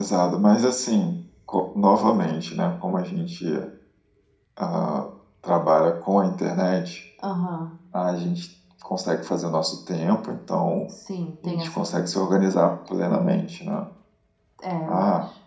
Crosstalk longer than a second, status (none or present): present